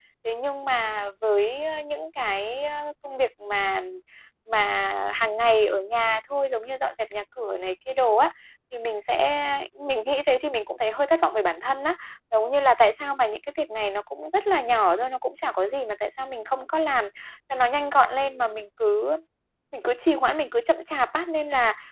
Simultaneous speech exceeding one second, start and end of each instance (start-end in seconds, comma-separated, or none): none